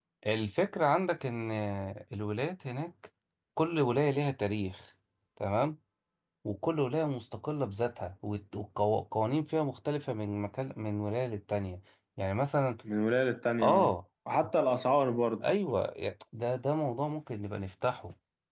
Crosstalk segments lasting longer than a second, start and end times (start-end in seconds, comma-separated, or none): none